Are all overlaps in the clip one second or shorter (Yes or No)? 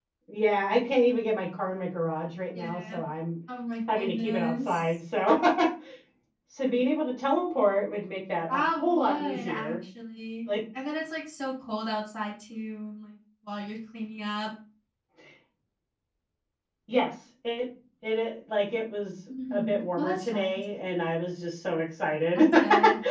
No